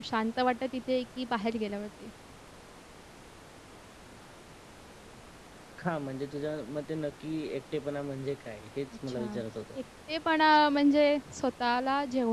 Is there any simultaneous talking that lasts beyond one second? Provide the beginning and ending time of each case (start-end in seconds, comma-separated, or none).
none